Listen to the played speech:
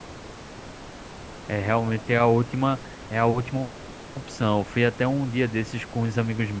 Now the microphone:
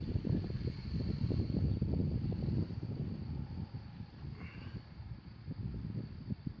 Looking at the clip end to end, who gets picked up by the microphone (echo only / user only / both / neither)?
neither